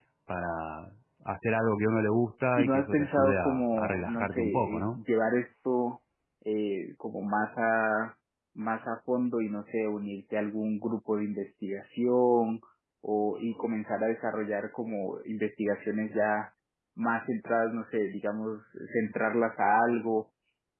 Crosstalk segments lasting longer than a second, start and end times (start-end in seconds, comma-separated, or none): 2.6-5.0